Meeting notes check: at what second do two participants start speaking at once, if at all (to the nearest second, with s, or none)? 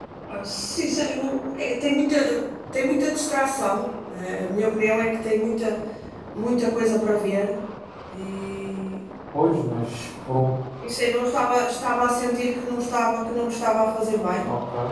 none